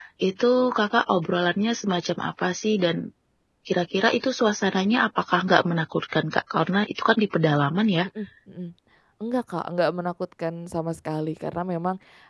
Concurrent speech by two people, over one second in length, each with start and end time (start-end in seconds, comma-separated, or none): none